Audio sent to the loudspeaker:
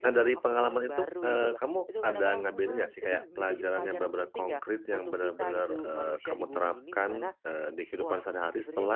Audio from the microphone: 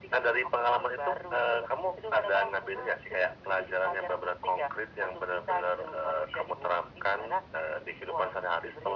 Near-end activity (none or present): none